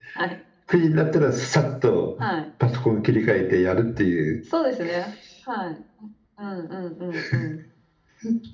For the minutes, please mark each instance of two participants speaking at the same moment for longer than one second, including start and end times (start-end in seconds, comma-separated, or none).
none